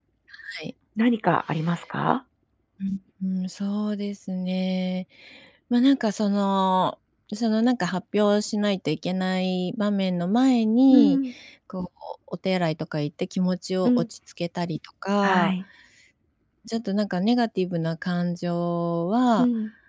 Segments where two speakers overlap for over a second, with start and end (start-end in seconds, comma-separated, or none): none